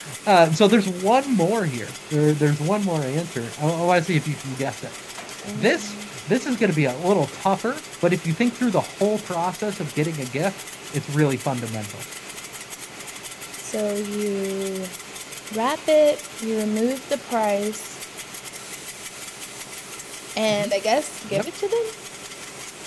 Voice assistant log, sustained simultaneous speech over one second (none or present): none